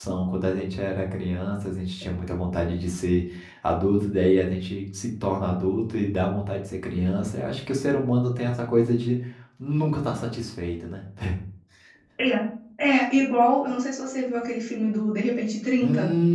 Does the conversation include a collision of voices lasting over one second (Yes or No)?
No